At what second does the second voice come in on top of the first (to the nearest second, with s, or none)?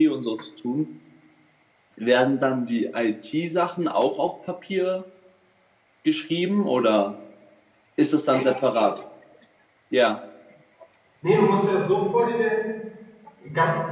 none